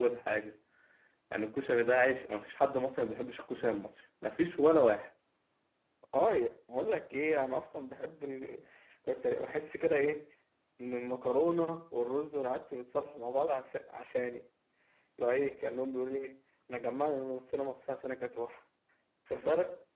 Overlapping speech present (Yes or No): No